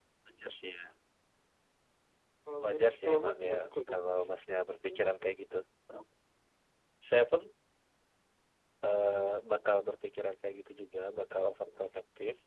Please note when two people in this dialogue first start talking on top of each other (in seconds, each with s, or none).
2.6 s